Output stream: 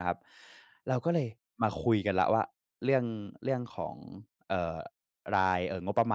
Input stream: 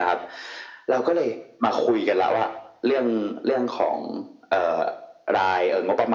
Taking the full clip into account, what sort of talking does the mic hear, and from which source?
echo only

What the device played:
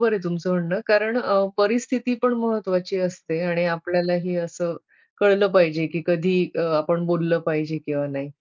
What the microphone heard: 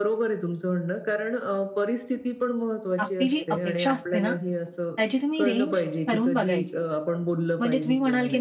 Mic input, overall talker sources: both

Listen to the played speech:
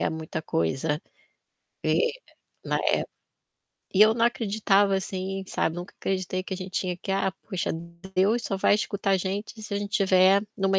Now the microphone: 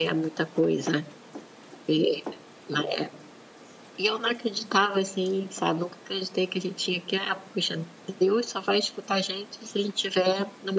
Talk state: echo only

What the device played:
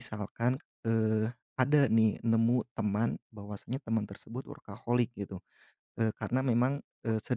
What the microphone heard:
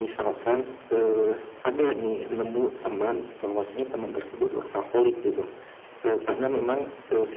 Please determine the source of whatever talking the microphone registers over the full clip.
echo only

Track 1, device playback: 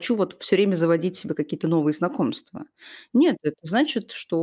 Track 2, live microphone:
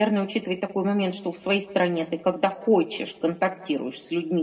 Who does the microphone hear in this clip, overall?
user only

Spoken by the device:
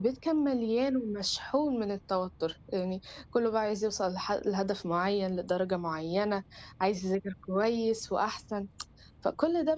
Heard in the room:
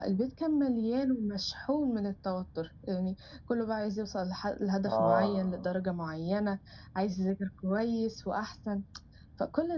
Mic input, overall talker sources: both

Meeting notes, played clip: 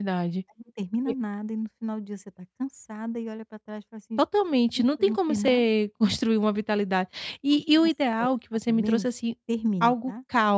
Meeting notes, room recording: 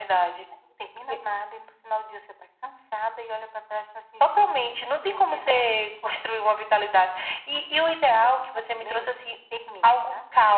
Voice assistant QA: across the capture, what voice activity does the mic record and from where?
echo only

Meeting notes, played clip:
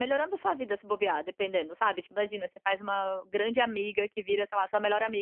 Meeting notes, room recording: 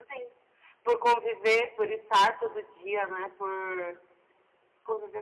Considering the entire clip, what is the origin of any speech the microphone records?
user only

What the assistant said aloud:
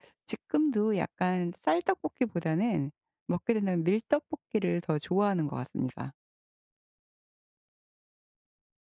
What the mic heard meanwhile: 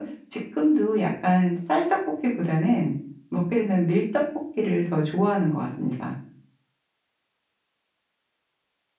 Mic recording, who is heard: echo only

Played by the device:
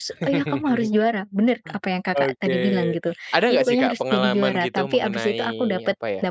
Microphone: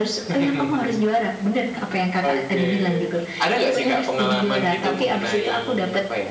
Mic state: echo only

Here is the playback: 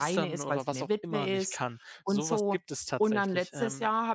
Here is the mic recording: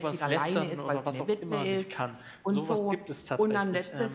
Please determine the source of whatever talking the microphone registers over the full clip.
echo only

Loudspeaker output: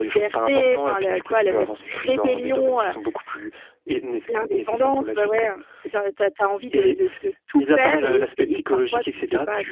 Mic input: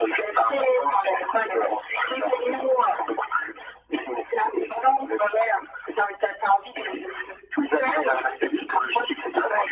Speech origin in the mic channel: echo only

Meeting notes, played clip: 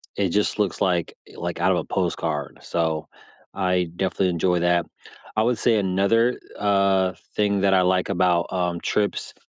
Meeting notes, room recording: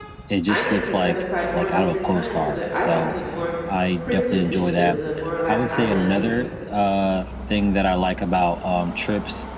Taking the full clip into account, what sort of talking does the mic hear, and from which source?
both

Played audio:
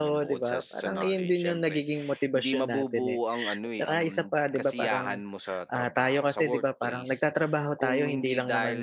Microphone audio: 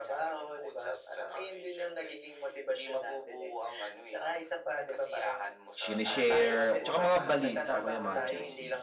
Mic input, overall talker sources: both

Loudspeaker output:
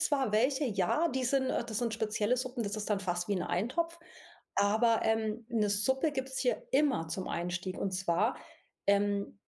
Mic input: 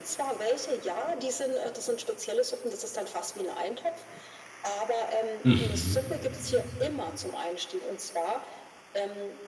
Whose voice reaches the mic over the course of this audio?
both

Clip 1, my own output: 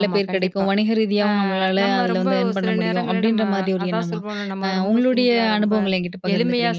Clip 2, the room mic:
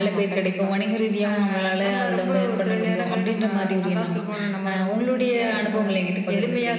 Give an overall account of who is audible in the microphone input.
echo only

